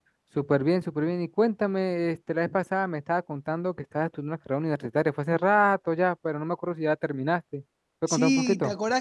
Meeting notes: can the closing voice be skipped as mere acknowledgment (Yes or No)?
No